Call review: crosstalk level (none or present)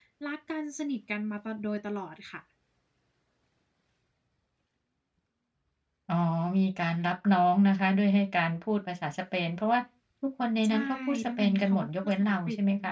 present